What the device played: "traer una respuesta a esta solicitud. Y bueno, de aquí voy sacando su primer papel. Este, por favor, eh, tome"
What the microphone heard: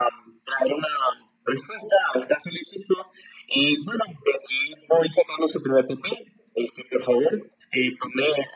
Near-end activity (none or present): none